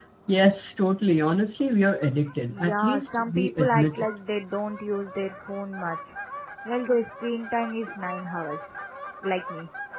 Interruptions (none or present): present